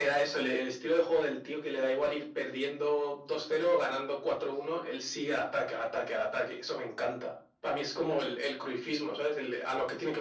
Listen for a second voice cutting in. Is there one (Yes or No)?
No